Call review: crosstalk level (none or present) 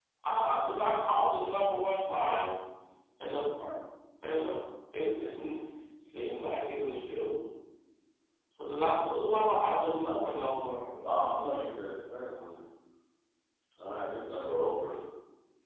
none